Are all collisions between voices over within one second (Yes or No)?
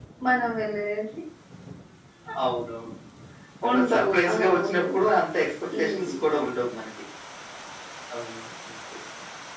No